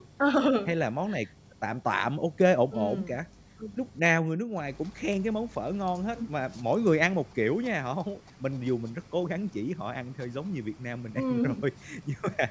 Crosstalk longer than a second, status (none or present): none